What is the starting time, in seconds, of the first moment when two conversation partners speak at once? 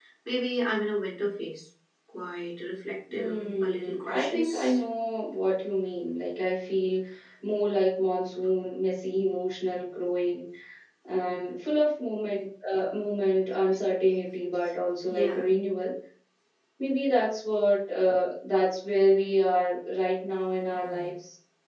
3.1 s

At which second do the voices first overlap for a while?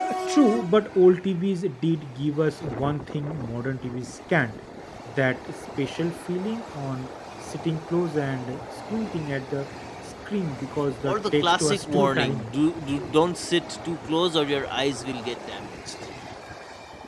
11.0 s

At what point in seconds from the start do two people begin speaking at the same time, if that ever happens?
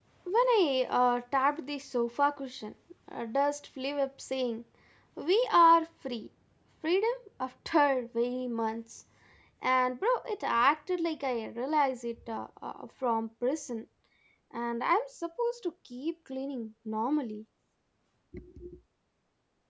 none

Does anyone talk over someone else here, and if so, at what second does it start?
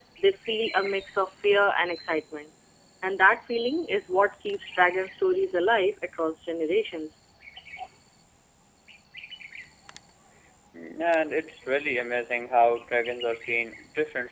none

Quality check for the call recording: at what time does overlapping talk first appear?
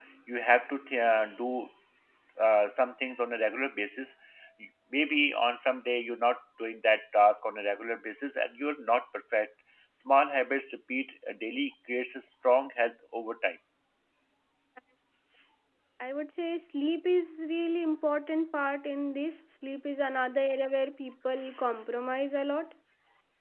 none

